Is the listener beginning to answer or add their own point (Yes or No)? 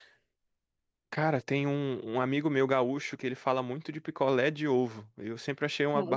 Yes